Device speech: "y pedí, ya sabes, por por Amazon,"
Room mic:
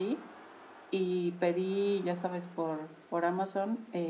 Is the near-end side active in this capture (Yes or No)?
No